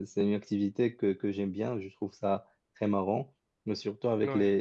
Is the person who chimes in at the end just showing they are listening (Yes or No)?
Yes